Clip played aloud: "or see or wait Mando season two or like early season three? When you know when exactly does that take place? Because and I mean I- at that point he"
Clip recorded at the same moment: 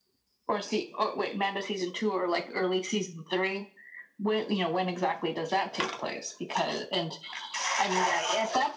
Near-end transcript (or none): none